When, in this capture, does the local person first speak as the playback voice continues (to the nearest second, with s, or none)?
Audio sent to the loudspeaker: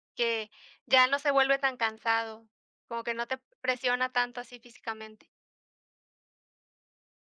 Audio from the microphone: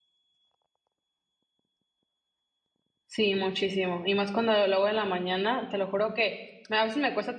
3 s